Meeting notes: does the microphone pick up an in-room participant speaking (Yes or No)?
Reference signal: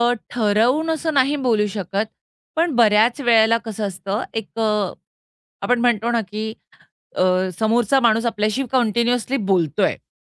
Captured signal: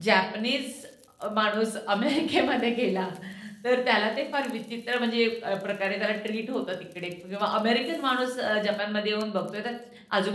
Yes